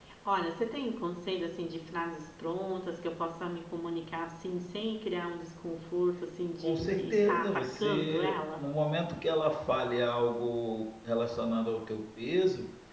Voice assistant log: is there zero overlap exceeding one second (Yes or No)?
No